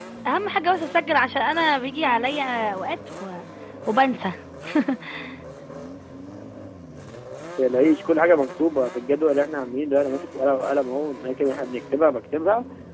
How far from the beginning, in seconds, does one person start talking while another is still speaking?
none

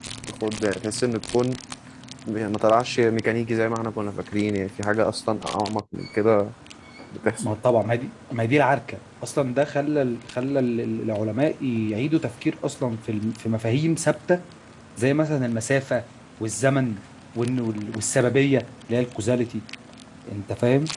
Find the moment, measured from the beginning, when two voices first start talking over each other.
none

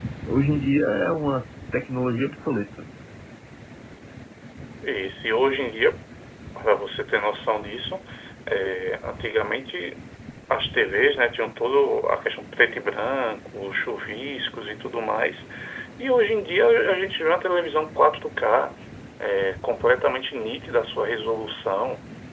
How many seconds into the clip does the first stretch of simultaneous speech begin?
none

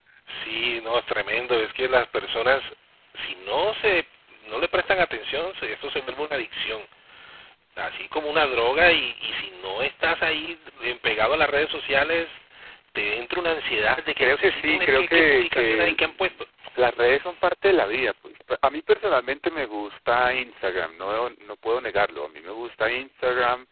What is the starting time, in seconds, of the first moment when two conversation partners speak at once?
14.2 s

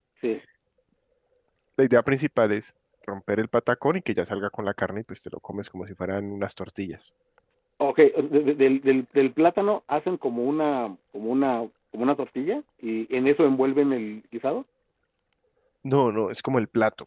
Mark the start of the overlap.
none

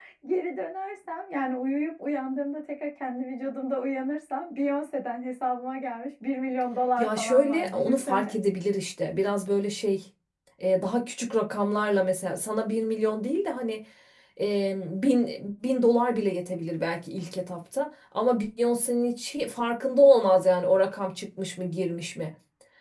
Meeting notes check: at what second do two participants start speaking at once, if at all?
7.0 s

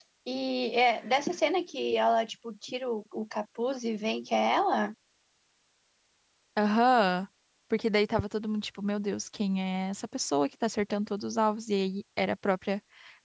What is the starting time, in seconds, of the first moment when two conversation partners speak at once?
none

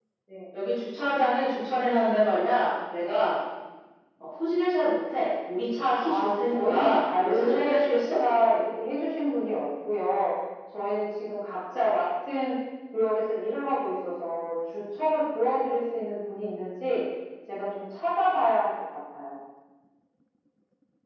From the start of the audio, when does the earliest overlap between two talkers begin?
6.0 s

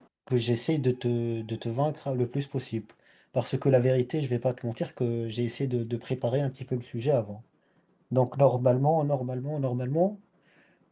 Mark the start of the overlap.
none

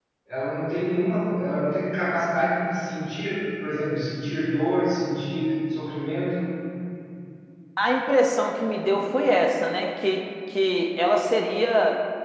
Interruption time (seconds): none

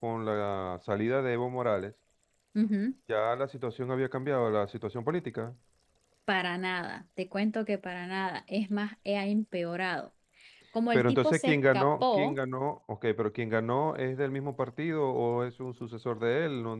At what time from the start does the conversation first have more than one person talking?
10.9 s

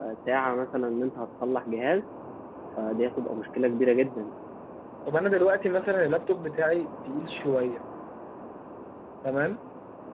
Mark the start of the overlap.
none

